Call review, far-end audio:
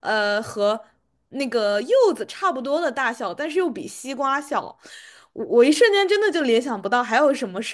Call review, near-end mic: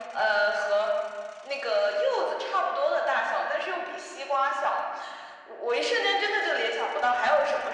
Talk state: echo only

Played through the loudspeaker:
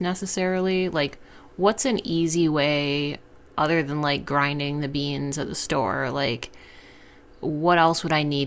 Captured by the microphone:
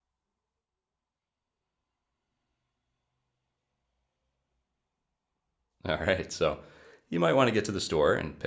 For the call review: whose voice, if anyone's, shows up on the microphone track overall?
user only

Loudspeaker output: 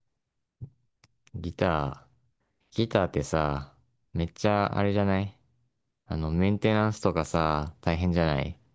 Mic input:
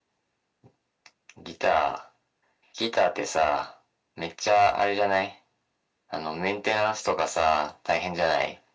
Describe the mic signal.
echo only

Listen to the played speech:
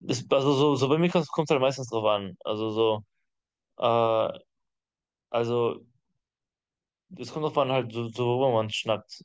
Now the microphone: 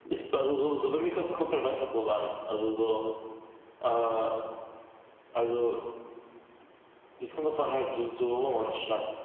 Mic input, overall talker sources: echo only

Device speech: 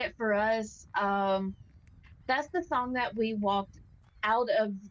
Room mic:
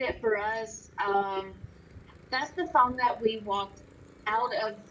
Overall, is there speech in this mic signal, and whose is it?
echo only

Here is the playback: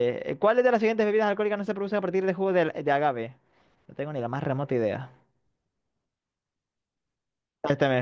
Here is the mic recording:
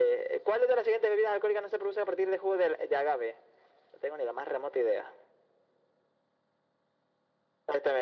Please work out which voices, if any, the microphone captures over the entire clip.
echo only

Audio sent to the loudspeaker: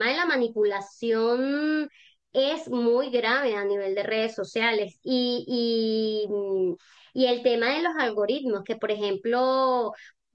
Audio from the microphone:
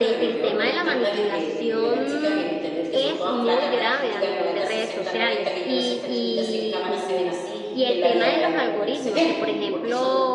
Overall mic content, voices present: both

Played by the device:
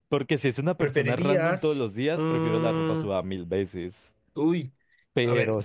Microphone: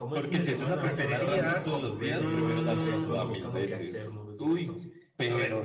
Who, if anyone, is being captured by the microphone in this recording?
both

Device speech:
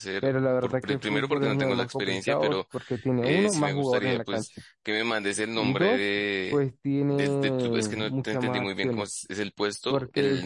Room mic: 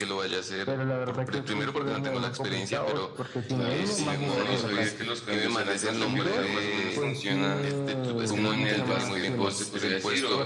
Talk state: both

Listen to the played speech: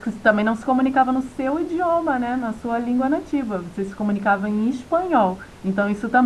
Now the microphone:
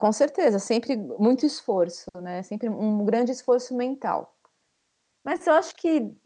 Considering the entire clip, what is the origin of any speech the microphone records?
user only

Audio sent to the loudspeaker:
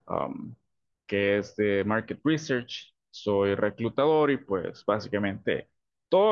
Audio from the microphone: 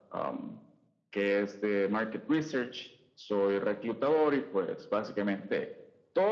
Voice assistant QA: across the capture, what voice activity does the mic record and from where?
echo only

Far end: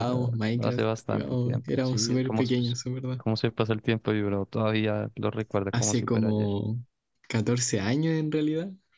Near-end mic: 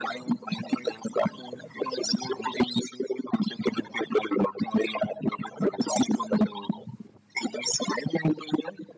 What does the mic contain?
echo only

